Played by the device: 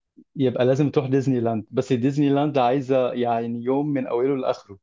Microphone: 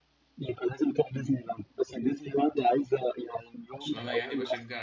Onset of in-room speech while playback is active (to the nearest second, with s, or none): 4 s